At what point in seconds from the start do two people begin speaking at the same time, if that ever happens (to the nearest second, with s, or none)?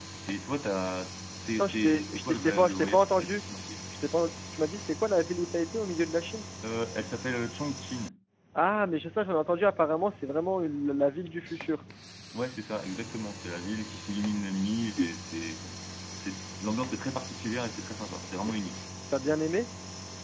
2 s